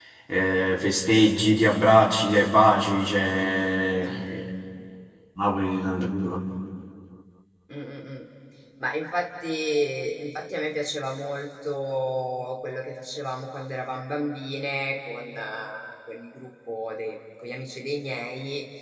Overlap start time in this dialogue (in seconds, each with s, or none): none